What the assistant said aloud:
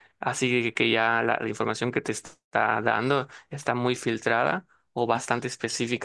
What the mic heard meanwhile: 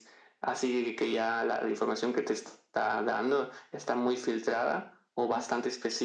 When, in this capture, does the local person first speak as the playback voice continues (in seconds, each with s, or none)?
none